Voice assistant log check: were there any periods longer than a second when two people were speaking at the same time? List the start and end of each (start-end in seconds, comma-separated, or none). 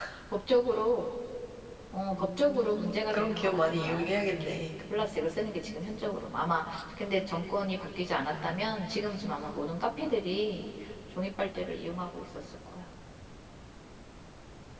2.2-4.6